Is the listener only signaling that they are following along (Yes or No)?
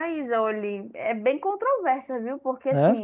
Yes